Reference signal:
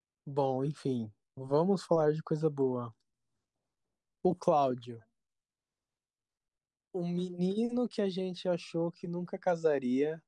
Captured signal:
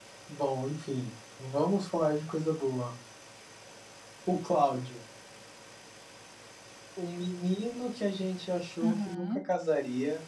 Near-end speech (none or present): present